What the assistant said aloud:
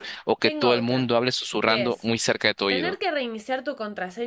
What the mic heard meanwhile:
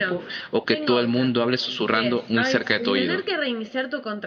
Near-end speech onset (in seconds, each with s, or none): 2.3 s